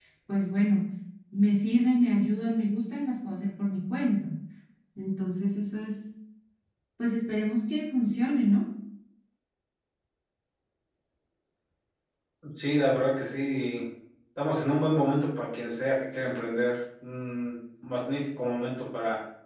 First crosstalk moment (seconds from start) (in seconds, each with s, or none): none